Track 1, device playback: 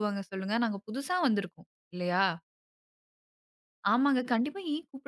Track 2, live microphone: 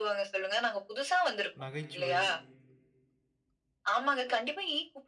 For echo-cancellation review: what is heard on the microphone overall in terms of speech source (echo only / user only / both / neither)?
both